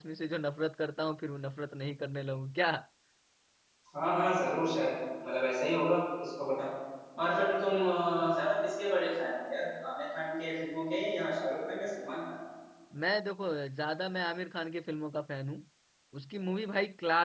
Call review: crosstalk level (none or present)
none